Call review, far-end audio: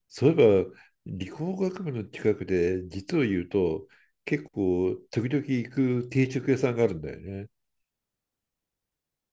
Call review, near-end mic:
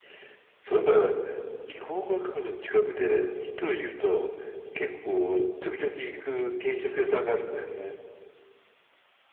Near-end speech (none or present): none